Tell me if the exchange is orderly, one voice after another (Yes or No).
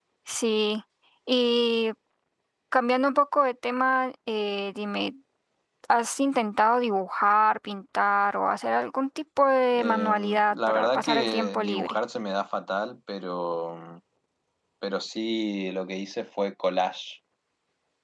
No